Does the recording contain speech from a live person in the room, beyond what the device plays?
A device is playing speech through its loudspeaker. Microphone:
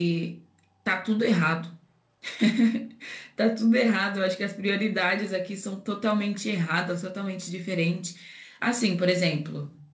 Yes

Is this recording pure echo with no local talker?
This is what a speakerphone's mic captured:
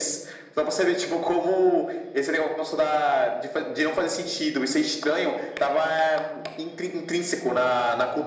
Yes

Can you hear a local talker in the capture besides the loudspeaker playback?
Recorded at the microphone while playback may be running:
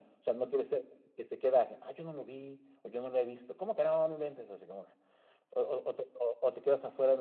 No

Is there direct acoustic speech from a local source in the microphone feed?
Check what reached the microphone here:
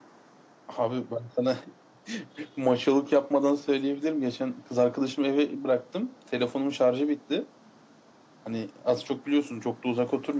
No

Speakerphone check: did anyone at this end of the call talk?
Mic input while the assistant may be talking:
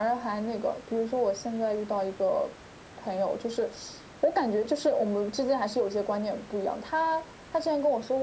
No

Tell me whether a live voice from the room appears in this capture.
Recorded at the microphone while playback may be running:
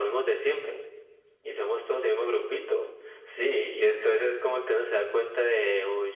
No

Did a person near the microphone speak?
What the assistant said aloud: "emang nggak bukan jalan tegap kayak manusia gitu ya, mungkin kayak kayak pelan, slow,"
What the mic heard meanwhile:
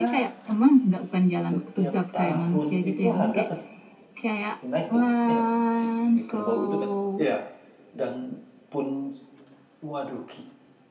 Yes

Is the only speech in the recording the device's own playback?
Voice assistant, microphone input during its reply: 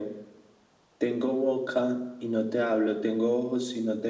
Yes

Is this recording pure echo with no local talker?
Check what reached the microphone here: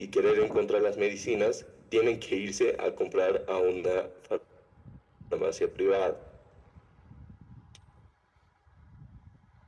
Yes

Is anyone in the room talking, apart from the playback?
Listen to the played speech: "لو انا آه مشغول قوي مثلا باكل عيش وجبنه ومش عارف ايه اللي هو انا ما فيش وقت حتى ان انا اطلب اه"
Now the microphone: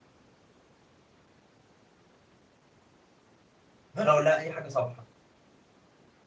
Yes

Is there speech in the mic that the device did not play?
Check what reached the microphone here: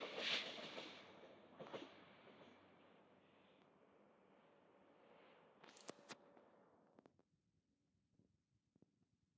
No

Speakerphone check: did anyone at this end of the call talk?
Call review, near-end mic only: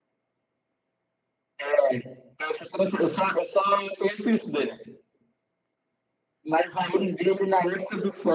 No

